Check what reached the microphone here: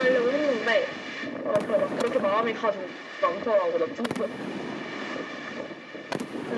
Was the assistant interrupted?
No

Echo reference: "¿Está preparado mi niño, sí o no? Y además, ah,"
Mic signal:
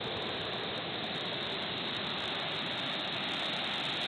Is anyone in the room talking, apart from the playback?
No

